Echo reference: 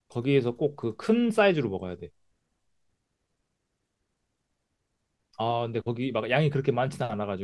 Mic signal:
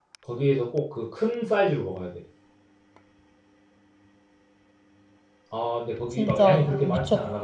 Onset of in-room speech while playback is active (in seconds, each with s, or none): 6.1 s